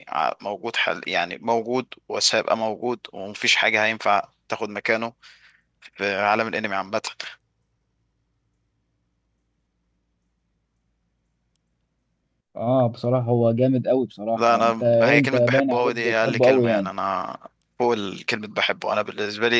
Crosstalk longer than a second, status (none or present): present